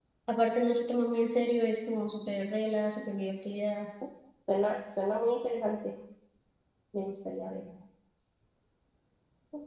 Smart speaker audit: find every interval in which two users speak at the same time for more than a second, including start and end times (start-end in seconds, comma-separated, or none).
none